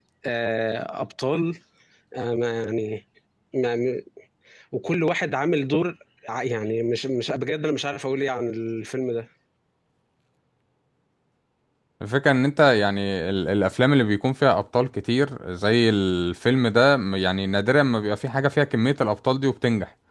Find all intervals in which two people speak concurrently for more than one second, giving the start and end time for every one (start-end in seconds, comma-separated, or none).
none